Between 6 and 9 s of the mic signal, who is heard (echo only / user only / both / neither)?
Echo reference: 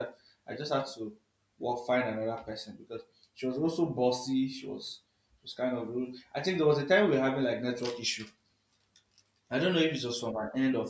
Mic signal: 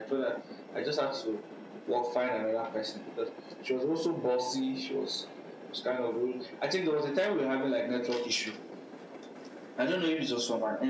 echo only